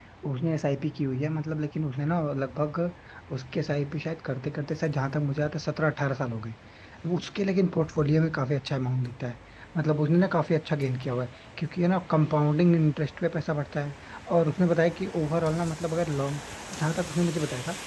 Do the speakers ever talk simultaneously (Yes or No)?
No